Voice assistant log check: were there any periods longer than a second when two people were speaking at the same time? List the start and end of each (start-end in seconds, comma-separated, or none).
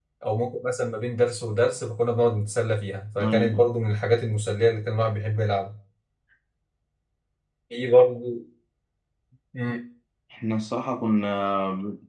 none